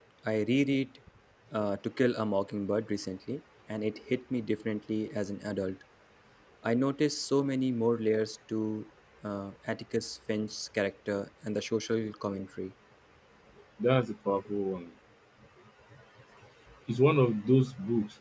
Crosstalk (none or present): none